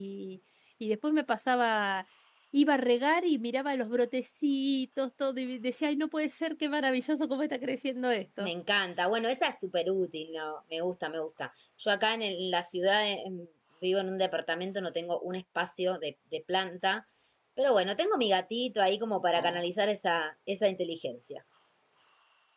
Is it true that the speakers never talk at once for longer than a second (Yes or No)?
Yes